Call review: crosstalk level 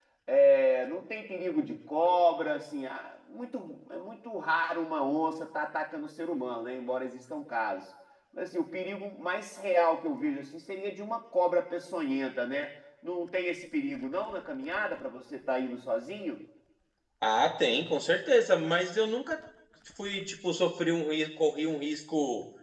none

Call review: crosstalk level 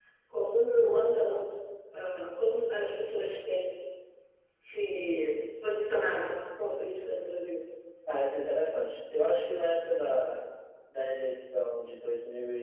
none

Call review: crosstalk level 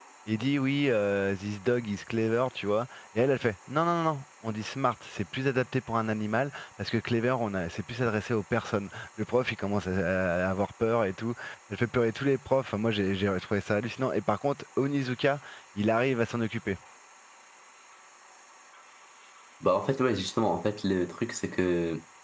none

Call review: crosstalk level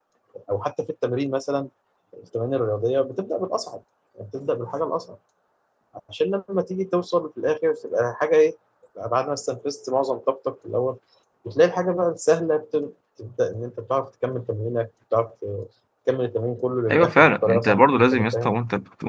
present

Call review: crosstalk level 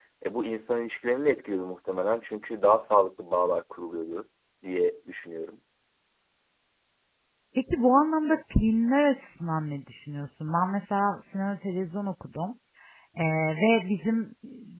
none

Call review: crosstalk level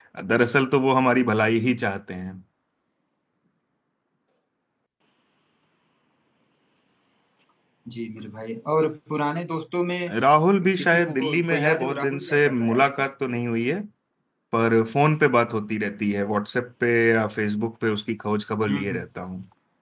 present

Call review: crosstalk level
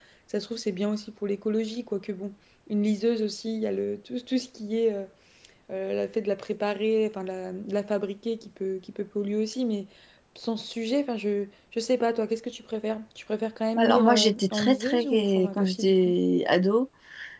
present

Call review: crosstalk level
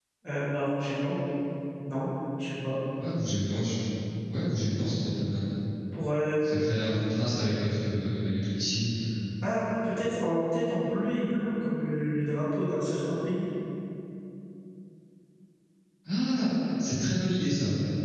none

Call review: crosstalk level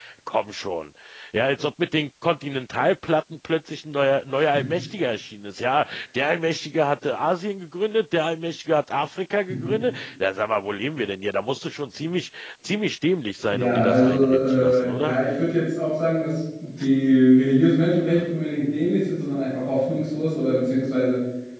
present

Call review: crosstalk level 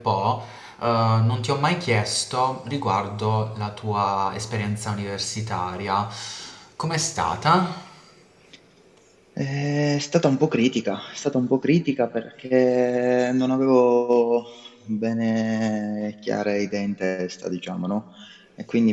none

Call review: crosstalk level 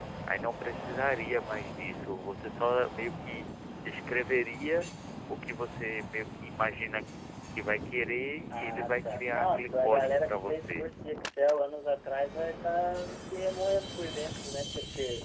present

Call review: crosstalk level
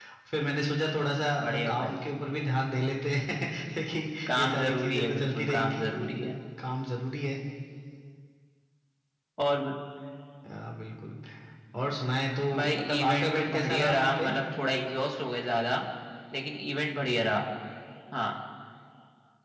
present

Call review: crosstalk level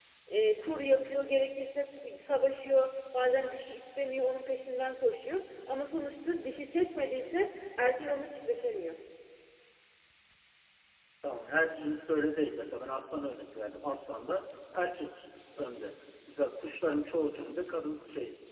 none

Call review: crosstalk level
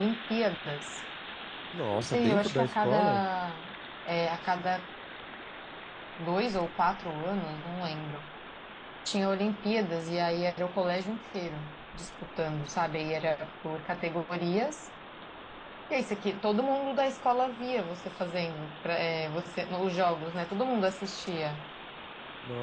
present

